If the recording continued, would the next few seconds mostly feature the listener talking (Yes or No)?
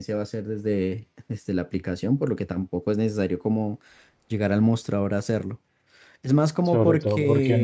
Yes